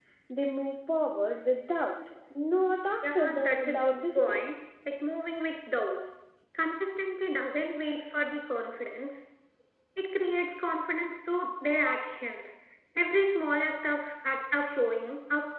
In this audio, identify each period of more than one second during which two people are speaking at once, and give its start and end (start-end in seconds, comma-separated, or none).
3.0-4.6